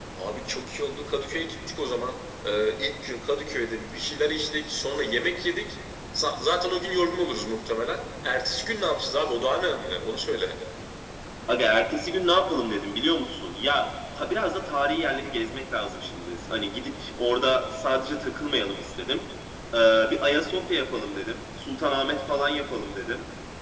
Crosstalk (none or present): none